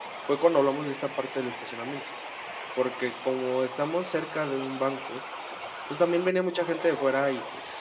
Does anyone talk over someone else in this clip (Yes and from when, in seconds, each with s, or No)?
No